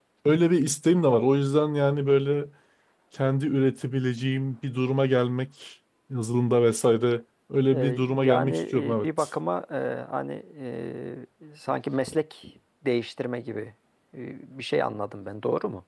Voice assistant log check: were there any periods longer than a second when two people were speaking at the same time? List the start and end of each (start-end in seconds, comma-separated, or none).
7.7-9.3